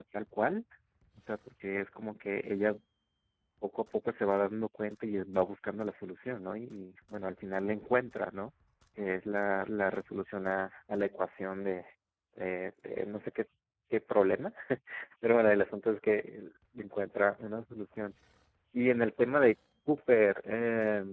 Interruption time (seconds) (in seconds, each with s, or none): none